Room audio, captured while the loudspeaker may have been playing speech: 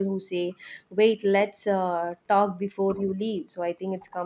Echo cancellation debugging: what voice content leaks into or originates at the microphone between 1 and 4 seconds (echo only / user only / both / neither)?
user only